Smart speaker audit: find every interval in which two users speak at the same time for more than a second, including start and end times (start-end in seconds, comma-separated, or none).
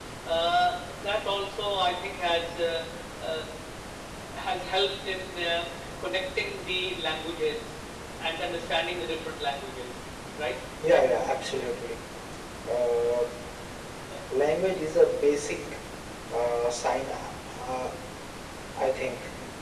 none